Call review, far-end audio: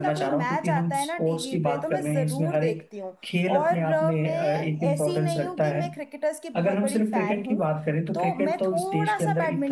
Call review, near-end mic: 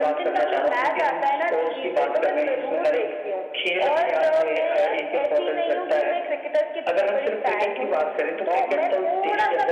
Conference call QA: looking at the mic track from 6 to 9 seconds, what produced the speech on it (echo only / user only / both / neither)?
echo only